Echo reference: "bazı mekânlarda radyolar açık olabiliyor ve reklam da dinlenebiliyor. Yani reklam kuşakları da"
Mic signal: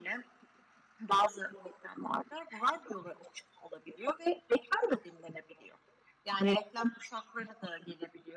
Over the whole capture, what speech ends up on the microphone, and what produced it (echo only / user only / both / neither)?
echo only